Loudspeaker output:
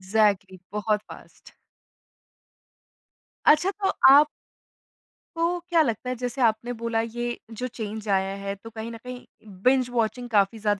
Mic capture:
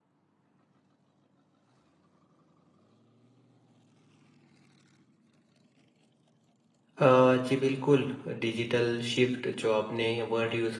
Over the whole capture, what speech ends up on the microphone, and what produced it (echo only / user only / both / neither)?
user only